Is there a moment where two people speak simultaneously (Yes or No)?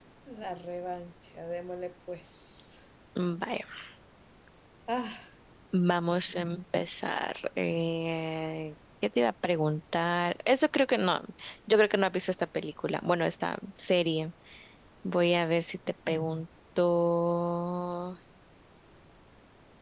No